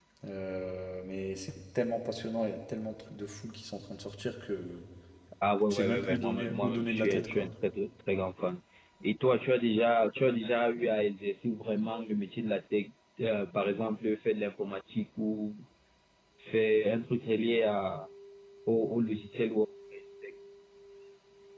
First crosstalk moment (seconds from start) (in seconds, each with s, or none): 5.7 s